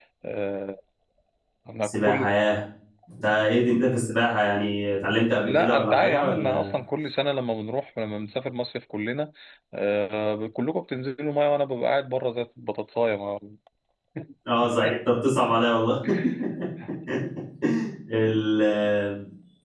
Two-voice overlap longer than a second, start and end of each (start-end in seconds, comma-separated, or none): 5.4-6.8